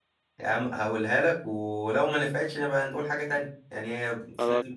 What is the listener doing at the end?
listening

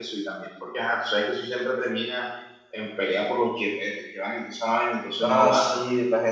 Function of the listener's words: taking over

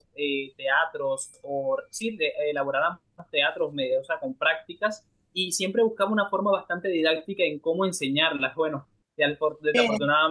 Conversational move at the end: listening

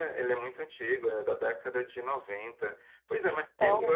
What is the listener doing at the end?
listening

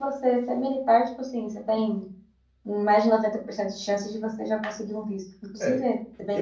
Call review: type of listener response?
taking over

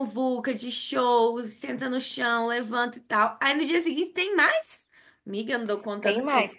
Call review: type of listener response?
taking over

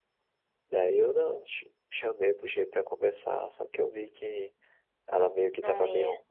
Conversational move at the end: listening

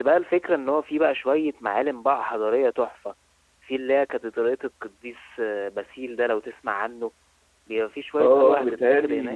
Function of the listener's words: taking over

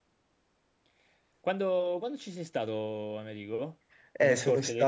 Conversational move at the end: taking over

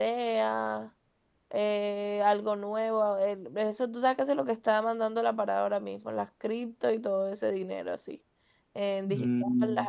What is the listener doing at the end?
listening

